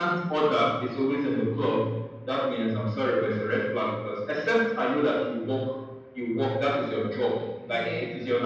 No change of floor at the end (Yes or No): Yes